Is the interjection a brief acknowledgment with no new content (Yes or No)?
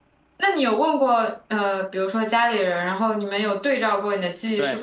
No